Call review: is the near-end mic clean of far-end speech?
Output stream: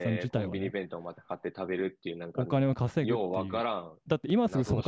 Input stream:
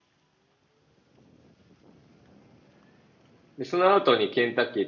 Yes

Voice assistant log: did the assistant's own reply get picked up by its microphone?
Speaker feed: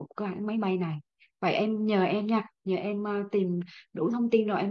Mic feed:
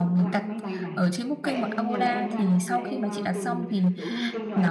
Yes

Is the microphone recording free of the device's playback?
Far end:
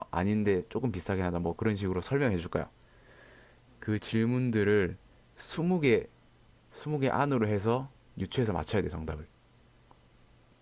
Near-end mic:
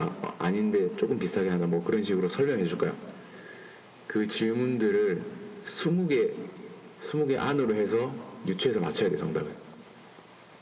No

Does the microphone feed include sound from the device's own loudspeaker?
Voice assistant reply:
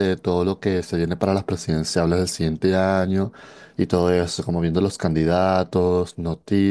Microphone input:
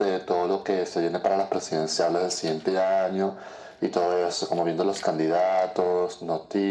Yes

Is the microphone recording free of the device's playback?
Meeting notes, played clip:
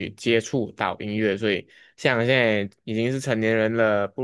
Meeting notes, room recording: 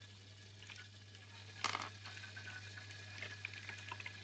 Yes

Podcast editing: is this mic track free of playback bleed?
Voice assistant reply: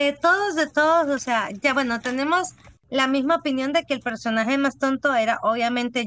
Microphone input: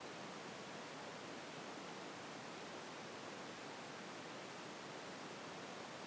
Yes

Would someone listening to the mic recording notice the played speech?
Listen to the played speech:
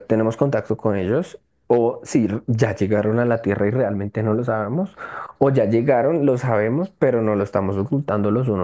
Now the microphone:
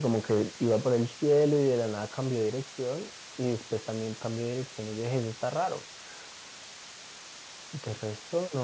No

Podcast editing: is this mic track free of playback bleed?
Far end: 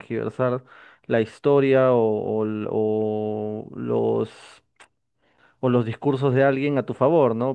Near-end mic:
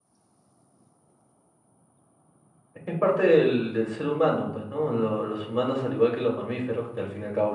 Yes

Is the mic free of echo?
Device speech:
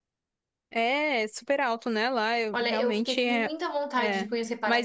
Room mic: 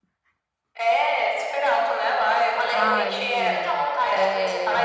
No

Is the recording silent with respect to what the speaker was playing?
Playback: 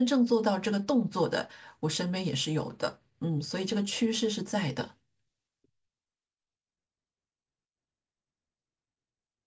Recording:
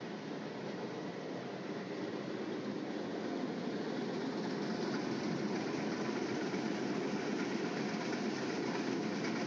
Yes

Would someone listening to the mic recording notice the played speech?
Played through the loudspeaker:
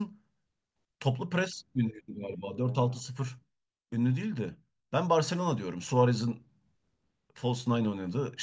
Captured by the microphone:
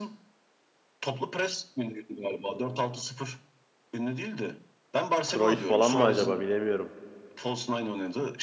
Yes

